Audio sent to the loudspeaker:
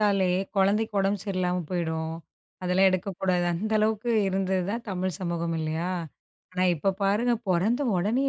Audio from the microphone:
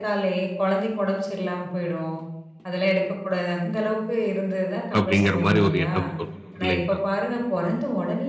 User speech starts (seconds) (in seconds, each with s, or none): 5.0 s